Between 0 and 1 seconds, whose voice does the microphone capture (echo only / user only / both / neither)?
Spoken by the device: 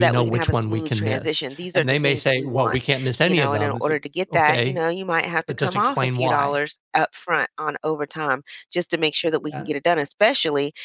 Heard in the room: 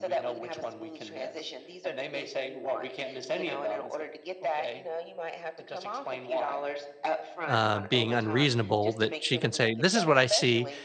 echo only